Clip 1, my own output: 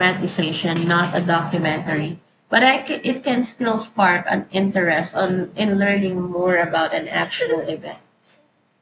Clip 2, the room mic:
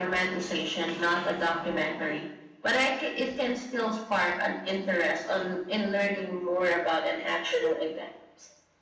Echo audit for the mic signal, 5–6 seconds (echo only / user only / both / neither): echo only